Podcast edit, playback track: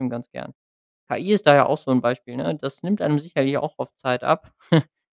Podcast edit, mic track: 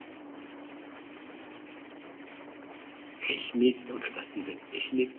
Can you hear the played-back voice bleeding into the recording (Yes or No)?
No